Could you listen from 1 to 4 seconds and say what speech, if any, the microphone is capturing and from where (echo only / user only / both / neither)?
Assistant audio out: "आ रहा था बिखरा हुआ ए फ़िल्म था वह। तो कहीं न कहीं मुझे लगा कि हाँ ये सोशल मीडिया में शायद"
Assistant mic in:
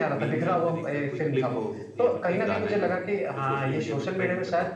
both